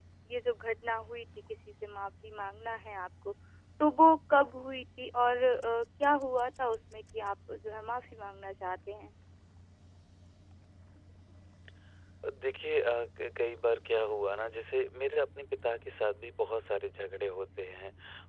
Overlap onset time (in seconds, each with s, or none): none